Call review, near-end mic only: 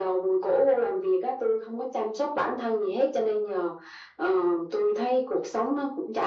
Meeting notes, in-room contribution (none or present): none